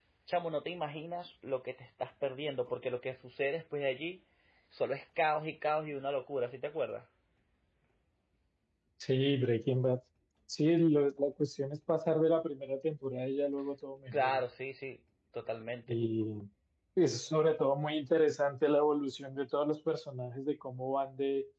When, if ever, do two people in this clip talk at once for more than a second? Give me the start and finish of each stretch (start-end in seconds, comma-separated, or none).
none